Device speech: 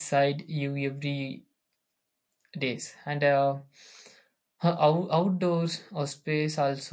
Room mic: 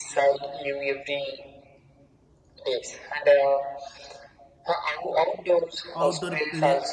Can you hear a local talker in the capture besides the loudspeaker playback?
Yes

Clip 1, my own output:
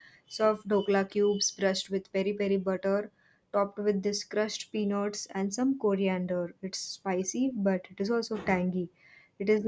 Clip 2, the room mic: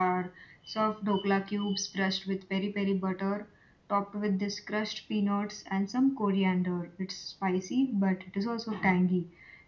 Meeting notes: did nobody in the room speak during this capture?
Yes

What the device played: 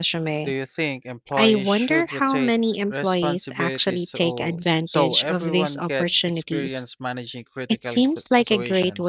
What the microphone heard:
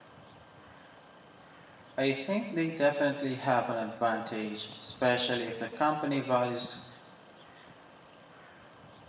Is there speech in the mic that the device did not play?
Yes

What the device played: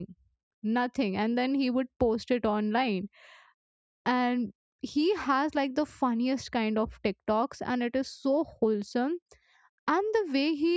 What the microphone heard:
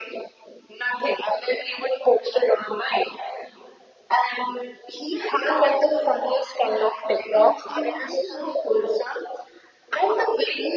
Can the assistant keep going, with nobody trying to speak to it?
No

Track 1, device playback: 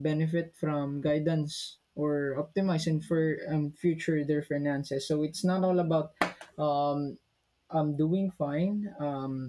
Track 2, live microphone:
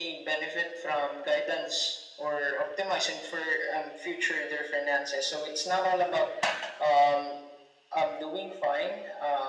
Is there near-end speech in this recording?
No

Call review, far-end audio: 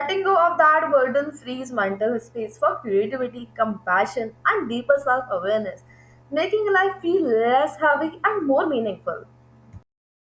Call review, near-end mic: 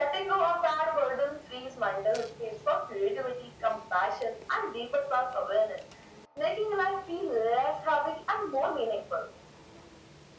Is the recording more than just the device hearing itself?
No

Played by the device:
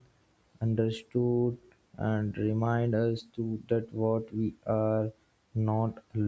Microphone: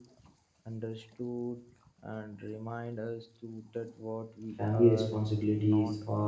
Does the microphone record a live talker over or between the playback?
Yes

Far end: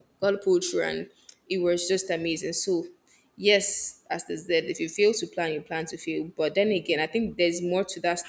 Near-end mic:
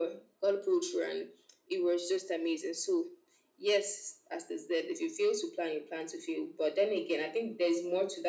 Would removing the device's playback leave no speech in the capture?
Yes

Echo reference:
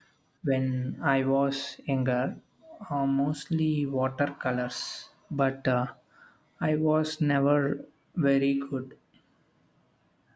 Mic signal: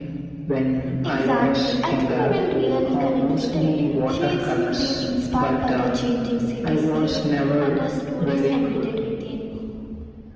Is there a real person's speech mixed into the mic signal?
Yes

